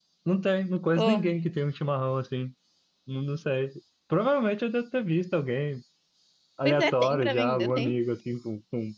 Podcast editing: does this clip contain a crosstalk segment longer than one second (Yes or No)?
Yes